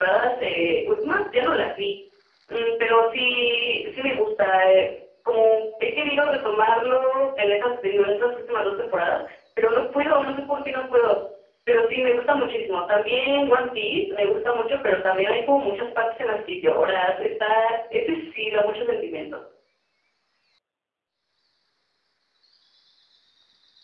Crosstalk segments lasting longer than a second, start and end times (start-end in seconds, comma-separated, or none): none